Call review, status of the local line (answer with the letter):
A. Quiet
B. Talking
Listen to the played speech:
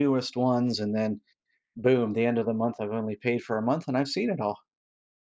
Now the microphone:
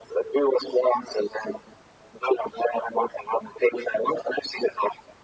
A